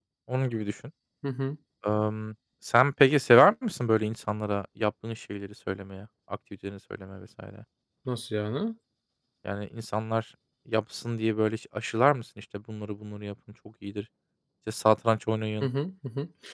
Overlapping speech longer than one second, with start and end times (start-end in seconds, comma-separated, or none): none